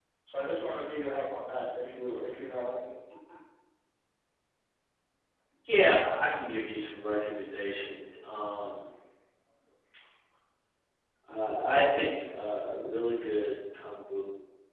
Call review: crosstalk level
none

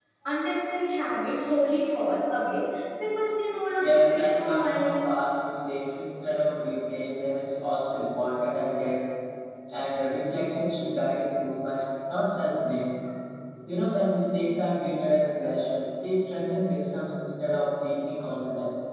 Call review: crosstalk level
present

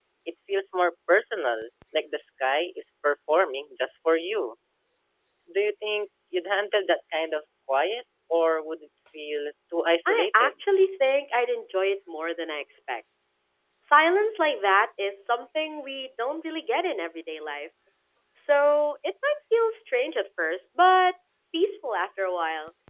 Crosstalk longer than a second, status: none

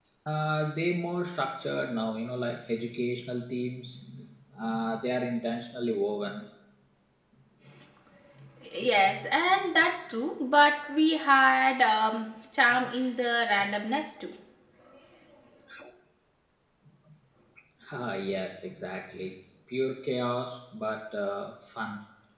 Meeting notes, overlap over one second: none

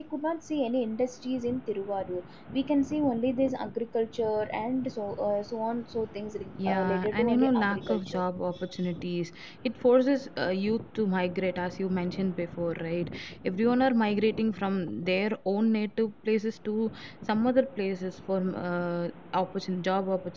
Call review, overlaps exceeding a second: present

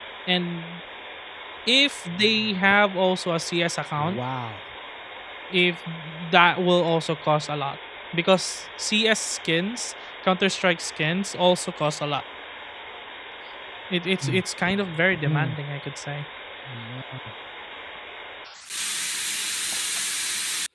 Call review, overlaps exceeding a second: none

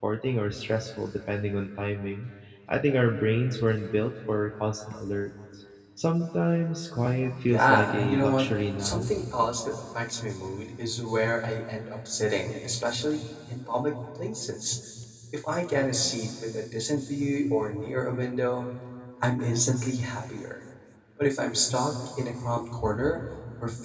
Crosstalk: present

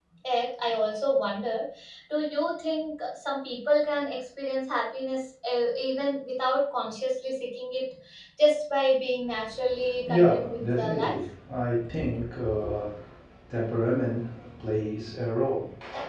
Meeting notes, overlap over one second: present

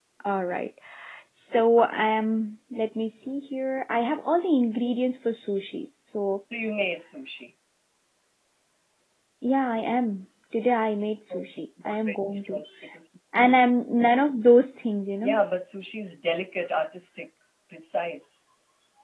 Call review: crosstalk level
present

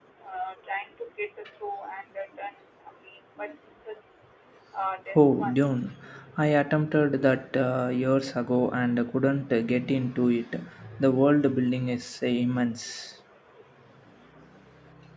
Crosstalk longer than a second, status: none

